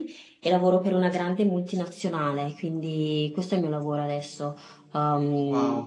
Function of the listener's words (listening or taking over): taking over